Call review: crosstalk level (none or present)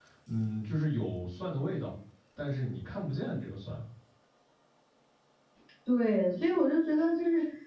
none